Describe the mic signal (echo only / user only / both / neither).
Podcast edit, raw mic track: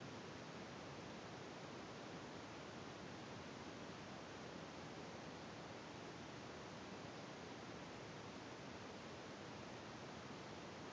neither